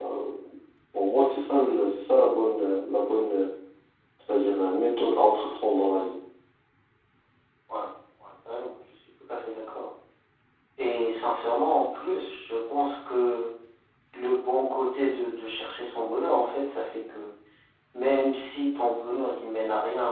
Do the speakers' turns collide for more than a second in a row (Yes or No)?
No